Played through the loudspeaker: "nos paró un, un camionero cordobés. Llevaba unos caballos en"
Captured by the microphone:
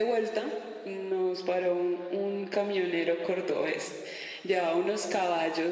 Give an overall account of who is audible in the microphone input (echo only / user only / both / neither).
echo only